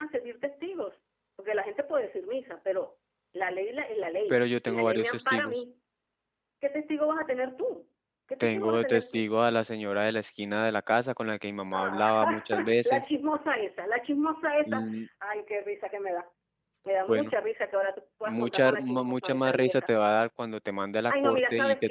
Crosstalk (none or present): present